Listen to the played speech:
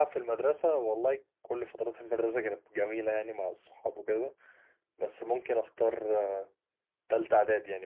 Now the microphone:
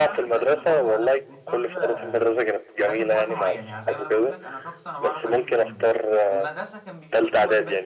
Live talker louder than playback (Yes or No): No